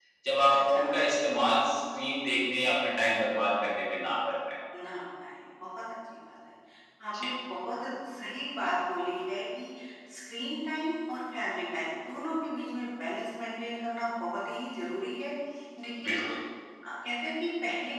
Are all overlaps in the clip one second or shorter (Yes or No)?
Yes